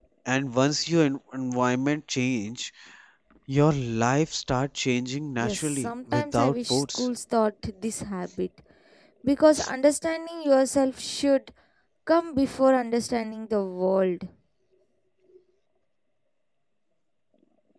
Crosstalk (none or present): present